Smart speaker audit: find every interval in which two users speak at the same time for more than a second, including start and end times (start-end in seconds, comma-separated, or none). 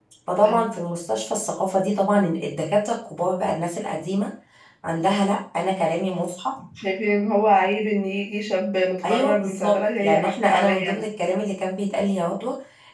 9.1-11.1